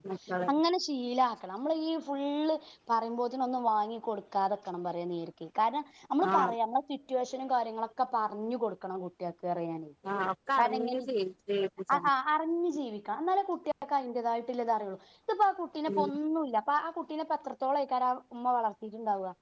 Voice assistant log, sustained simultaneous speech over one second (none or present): none